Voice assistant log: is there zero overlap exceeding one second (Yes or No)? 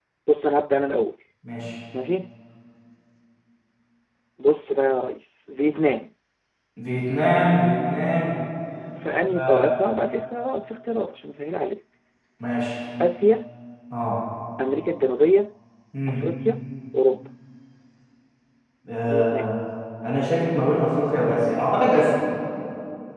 Yes